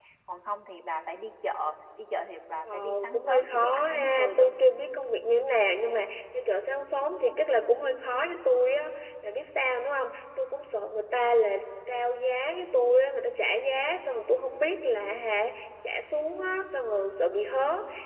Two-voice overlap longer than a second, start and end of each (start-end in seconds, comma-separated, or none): 2.7-4.5